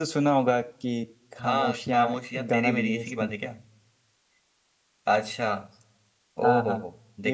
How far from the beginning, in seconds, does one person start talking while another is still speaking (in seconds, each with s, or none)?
1.4 s